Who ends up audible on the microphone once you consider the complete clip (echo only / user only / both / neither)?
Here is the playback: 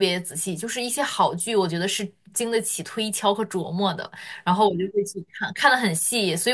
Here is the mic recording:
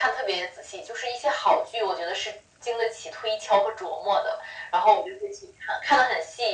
echo only